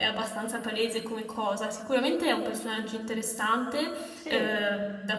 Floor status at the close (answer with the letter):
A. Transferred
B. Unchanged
B